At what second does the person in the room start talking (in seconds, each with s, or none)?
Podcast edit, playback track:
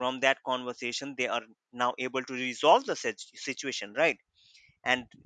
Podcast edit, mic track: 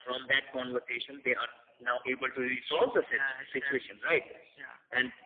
3.0 s